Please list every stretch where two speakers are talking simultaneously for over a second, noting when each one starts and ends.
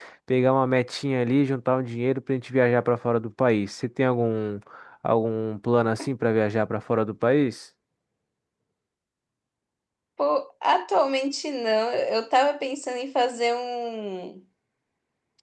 none

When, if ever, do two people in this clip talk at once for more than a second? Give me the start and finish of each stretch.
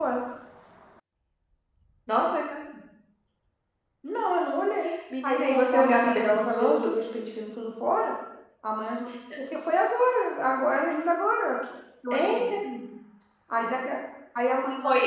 5.2-6.9

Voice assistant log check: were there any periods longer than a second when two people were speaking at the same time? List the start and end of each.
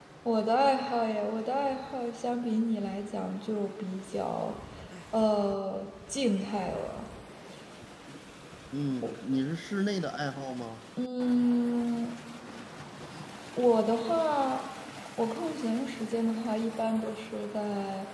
none

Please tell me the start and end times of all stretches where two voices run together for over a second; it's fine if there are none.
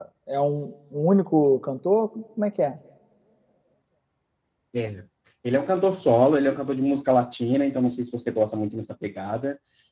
none

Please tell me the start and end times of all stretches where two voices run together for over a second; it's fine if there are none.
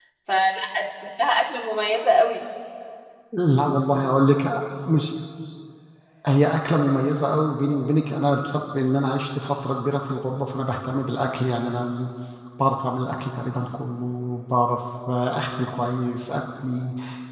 none

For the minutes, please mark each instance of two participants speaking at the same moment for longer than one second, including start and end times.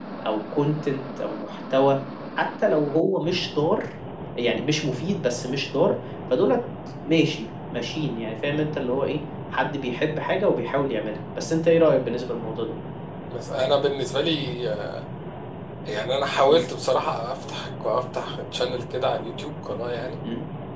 none

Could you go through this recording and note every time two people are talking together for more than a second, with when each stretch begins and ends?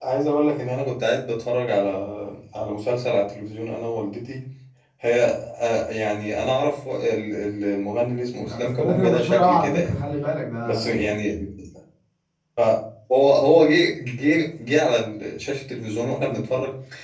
8.5-10.0

